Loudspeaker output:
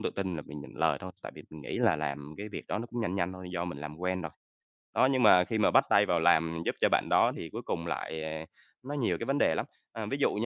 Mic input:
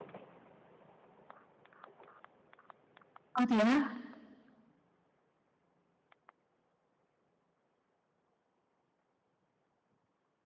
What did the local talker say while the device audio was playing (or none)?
Ơ, thế á?